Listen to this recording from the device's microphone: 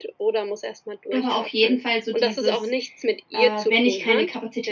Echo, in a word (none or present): present